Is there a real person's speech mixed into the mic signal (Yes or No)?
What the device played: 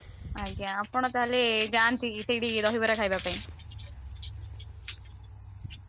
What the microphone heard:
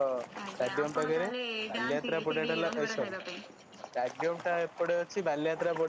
Yes